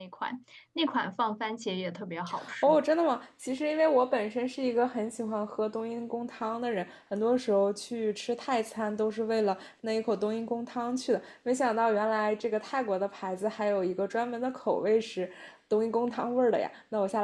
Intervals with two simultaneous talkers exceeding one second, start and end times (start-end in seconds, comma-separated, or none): none